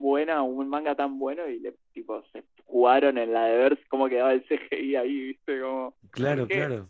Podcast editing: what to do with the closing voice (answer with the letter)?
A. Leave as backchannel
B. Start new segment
B